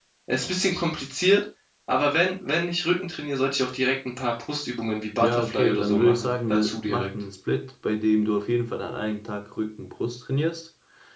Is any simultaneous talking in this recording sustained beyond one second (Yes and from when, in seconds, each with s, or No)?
Yes, from 5.2 s